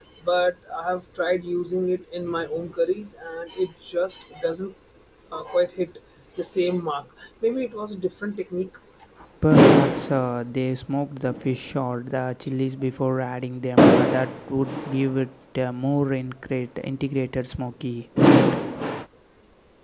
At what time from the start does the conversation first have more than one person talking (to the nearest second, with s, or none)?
none